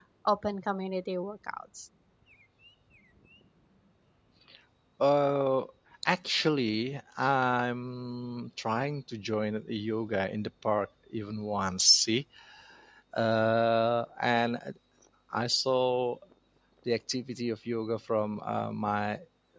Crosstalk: none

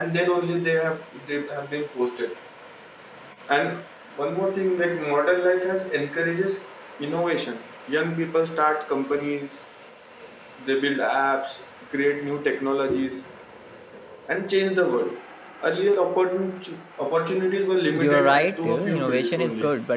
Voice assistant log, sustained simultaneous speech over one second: present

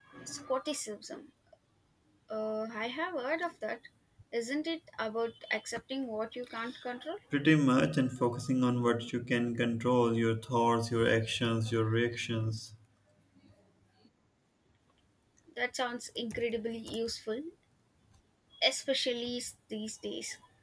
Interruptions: none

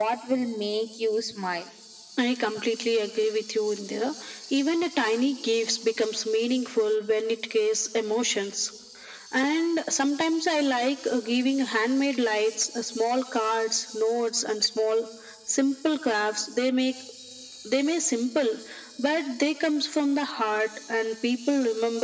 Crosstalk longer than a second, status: none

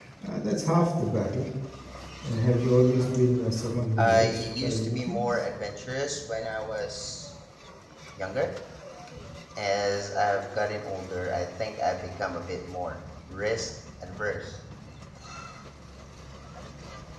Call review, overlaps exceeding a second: present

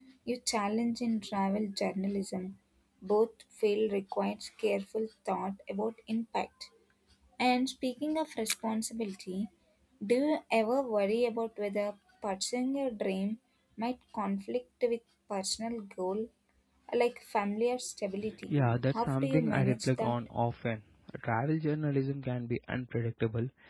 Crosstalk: present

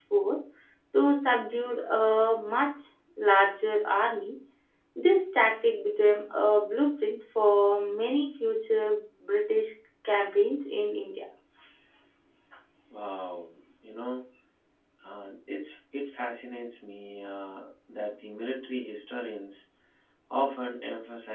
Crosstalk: none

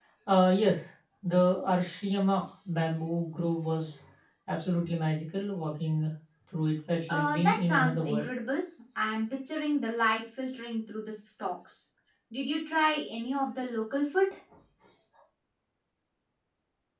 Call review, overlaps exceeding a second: present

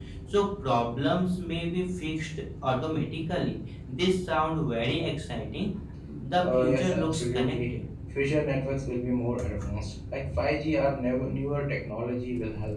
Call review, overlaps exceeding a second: present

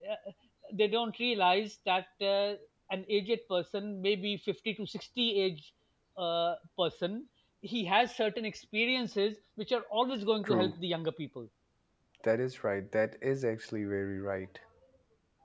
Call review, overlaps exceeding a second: none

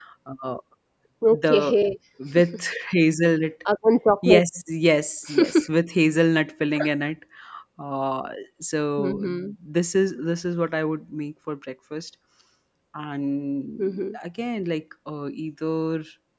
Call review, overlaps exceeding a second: none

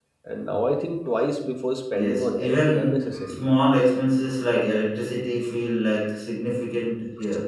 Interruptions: present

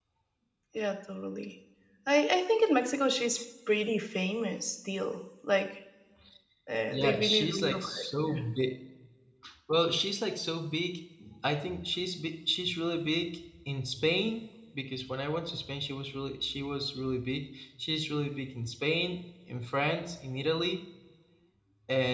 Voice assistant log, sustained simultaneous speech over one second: present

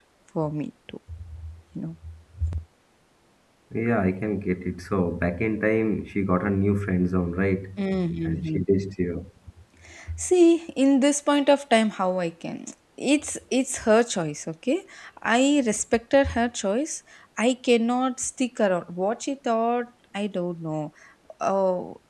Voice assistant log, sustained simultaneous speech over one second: none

